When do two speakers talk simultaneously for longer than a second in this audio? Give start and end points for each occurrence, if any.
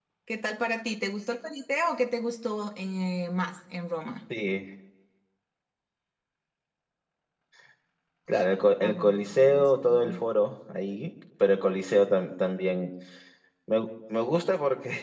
8.8-10.2

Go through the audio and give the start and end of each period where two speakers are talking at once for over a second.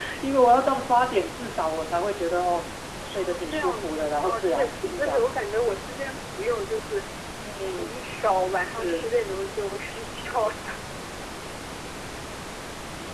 3.0-5.3

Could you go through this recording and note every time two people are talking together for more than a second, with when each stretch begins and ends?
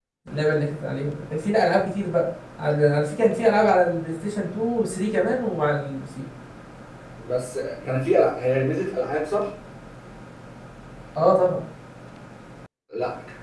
none

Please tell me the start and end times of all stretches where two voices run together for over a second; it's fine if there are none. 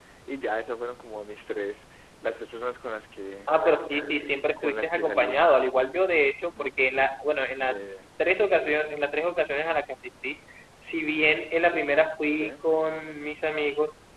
4.6-5.8

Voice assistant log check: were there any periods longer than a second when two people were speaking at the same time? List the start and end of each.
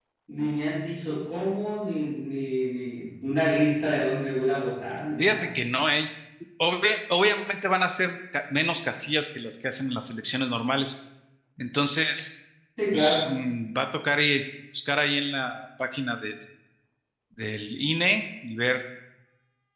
none

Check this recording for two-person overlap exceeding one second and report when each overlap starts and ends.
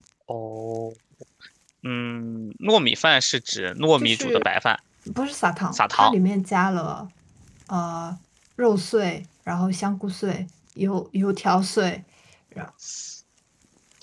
none

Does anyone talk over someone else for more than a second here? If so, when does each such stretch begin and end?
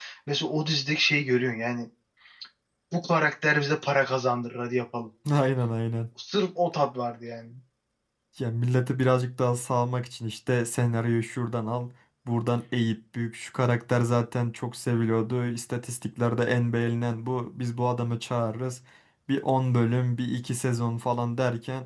none

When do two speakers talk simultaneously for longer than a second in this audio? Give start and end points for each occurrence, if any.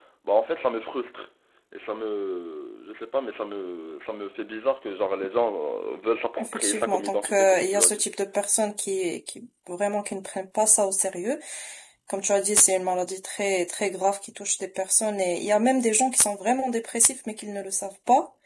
6.4-8.0

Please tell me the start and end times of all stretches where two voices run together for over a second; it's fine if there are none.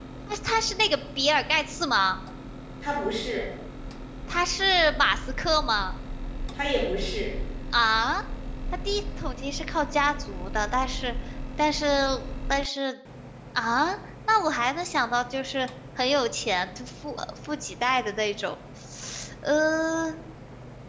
none

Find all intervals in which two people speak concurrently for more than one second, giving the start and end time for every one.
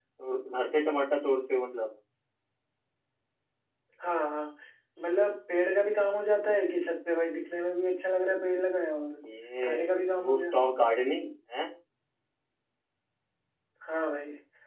none

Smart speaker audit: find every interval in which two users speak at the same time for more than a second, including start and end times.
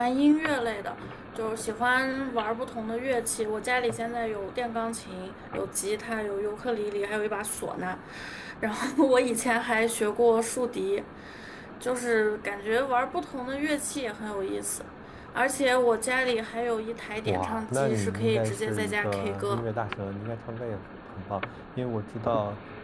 17.2-19.6

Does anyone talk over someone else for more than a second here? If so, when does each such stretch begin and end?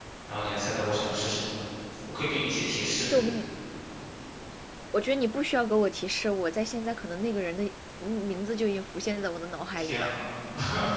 none

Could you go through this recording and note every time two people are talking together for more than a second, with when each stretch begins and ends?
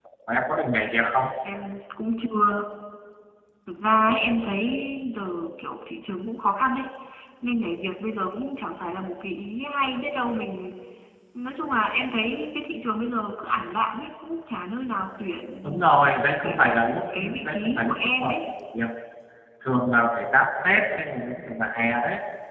17.1-18.5

